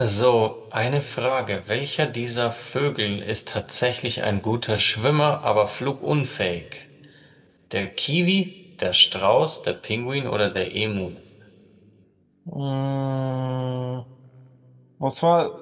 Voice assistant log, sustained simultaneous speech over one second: none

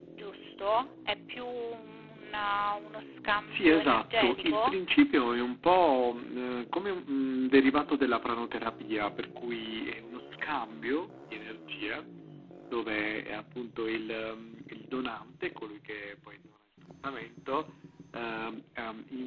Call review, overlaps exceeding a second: present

